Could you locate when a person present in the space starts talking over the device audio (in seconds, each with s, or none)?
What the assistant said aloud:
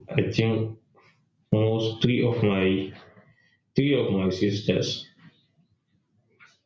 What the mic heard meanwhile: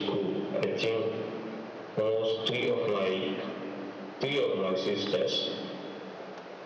none